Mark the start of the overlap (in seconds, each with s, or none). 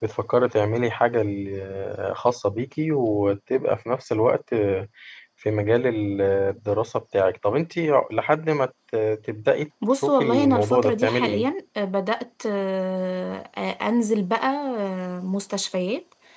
9.8 s